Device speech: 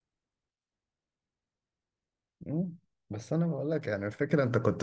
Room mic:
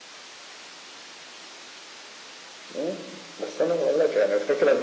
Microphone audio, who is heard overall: echo only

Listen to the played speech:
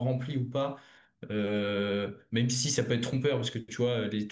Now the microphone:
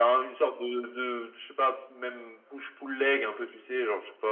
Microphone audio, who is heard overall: user only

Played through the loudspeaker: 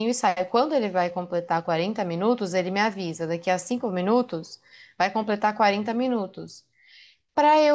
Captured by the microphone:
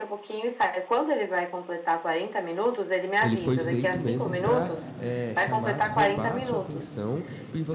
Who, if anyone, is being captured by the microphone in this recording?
both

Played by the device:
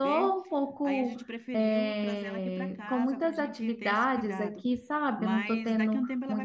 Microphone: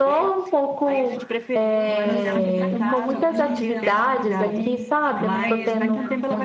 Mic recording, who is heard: both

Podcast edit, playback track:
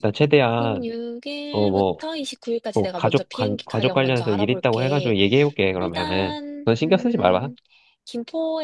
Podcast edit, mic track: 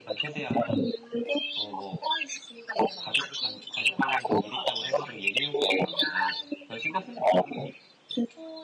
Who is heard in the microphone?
echo only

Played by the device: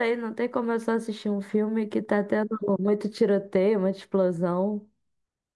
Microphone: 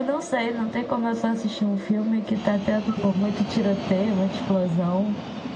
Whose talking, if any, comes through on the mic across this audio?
echo only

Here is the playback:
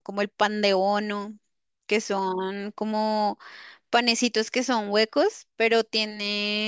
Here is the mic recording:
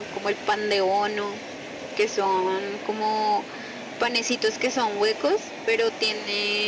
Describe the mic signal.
echo only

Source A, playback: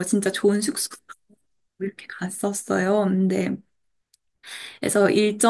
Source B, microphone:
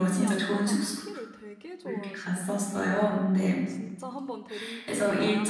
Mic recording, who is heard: both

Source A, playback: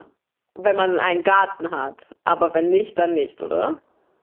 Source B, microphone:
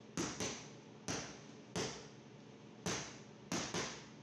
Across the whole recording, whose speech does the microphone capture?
neither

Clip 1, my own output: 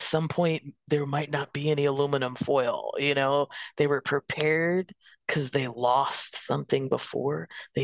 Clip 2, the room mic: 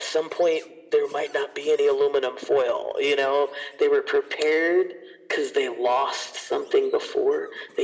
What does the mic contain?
echo only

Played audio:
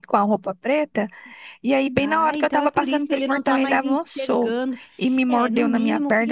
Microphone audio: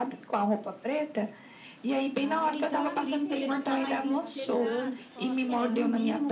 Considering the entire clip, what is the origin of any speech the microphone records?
both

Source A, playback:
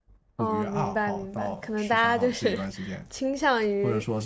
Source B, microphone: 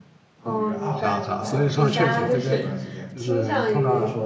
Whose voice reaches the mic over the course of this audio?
both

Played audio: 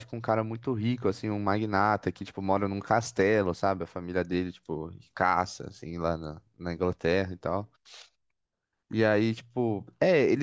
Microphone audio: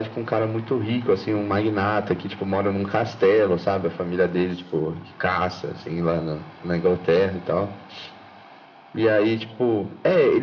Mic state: echo only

